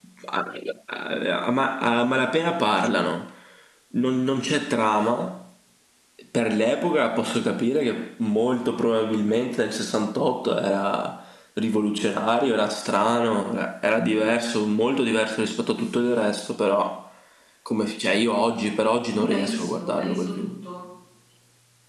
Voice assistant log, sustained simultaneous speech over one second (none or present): present